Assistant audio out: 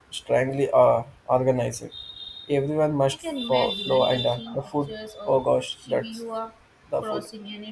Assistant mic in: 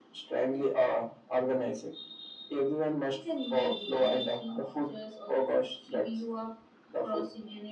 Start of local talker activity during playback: none

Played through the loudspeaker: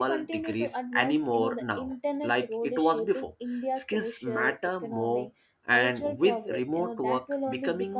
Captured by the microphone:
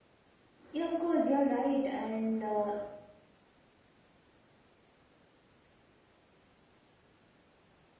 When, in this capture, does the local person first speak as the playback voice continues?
0.7 s

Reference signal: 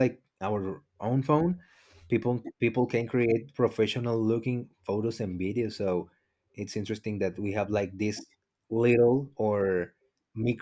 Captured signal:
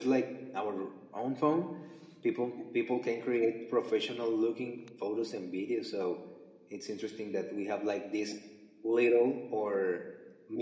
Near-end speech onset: none

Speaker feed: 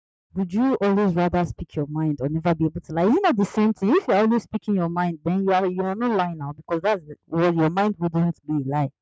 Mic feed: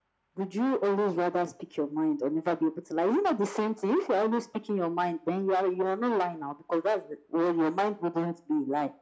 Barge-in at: none

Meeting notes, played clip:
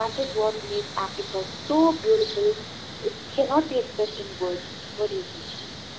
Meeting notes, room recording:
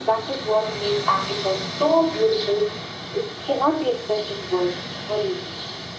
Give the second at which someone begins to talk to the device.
none

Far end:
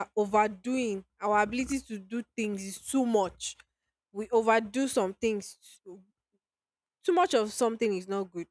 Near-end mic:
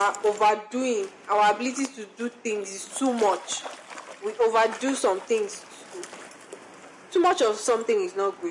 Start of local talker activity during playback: none

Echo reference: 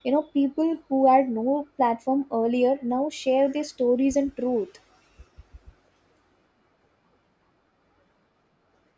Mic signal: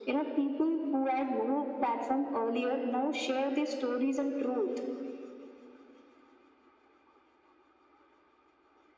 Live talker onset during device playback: none

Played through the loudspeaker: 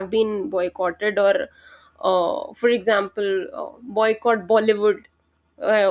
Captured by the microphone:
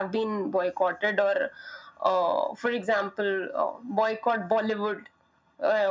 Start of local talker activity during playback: none

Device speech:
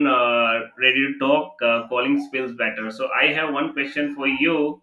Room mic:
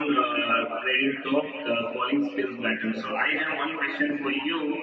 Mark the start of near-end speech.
none

